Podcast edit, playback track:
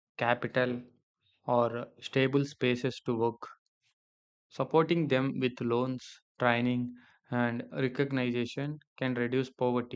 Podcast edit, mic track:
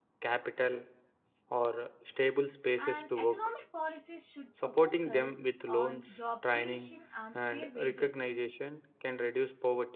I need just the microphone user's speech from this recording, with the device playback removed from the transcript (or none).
and economic policies should uh, focus on job creation and fair wages.